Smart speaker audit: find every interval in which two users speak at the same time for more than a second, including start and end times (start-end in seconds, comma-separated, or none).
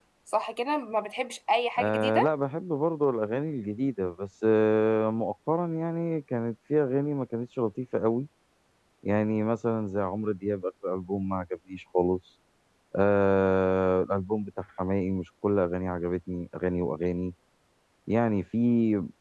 none